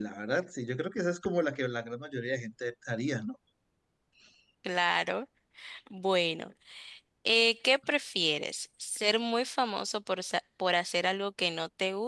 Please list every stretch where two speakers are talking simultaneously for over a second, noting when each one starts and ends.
none

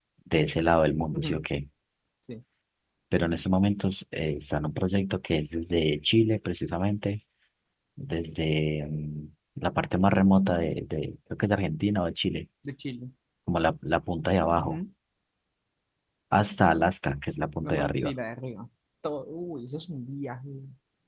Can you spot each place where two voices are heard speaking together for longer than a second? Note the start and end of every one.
none

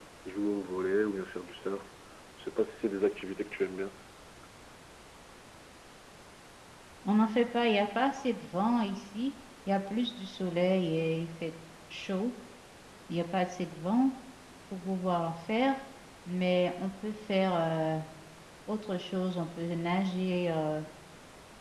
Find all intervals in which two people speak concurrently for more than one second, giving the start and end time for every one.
none

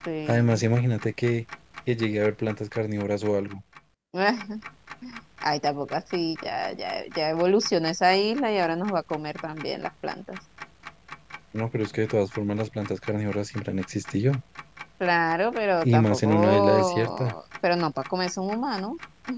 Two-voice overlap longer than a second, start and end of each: 15.8-17.3

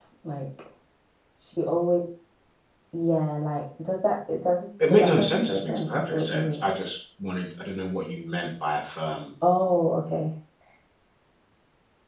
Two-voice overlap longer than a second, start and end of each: 4.9-6.6

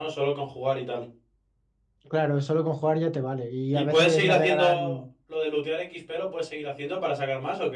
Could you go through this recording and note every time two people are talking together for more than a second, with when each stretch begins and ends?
3.7-5.0

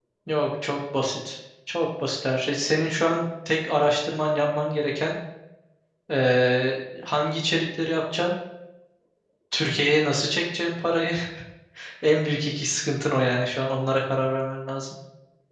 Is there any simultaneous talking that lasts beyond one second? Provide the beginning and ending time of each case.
none

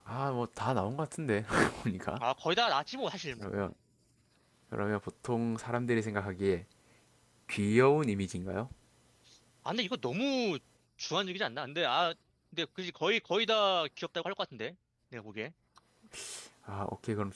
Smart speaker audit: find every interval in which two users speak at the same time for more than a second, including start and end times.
none

